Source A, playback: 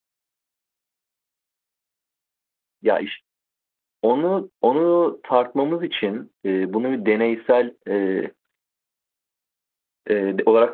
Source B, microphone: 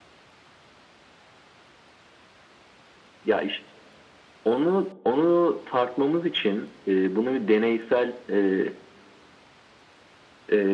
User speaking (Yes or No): No